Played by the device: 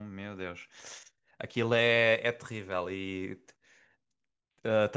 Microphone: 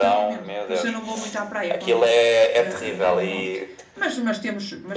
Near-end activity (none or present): present